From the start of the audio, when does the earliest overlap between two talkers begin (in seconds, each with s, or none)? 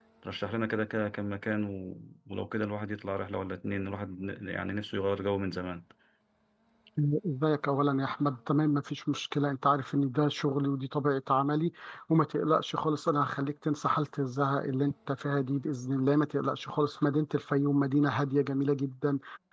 none